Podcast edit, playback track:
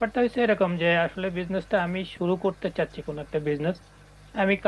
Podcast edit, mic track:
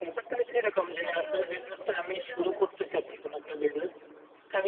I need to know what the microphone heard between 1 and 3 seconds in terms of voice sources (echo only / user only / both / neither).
both